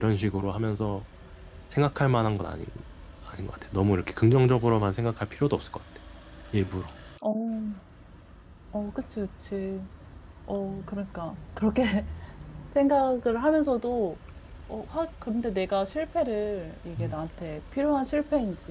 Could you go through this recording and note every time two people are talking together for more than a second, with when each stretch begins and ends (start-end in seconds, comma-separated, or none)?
none